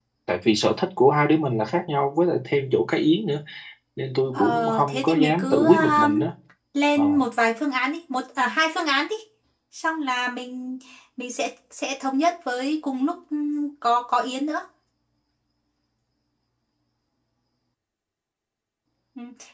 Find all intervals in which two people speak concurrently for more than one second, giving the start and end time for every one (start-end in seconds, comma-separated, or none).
4.3-6.2